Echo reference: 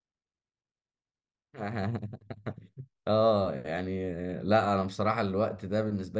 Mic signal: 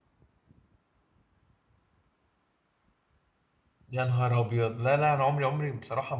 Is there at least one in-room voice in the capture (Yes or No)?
Yes